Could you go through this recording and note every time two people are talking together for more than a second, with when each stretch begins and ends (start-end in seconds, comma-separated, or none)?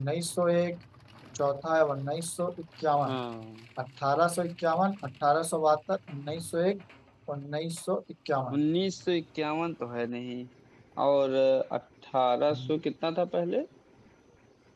none